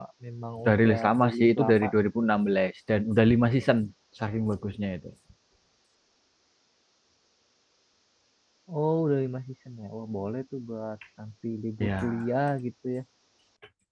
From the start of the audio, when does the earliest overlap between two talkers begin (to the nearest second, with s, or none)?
1 s